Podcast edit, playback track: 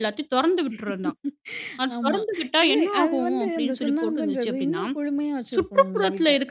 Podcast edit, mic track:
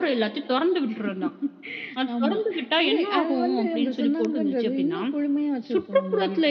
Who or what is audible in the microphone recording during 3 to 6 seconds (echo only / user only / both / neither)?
echo only